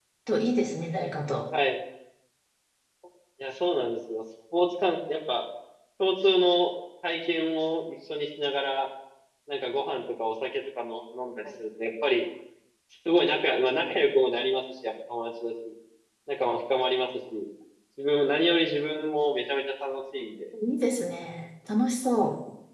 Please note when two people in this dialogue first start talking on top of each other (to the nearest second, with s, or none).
none